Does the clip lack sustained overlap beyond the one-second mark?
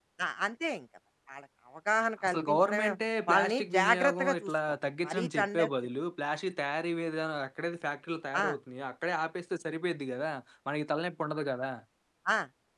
No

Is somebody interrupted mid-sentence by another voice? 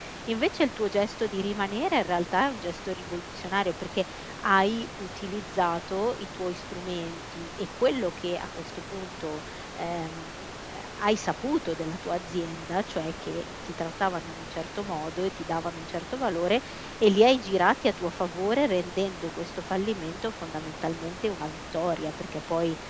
No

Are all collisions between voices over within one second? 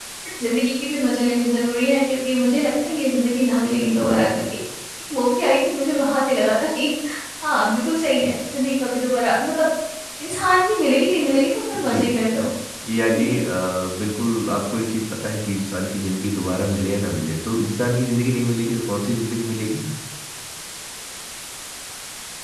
Yes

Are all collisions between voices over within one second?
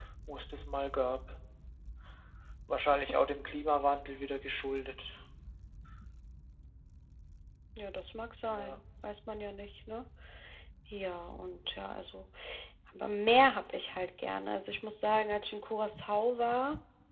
Yes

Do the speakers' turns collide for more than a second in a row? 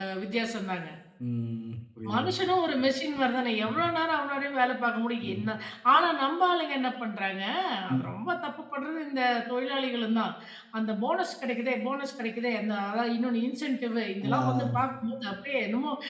No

